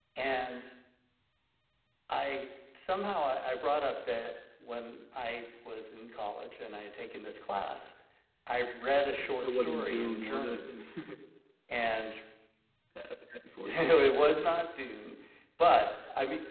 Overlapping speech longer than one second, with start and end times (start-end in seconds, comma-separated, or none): 9.3-10.6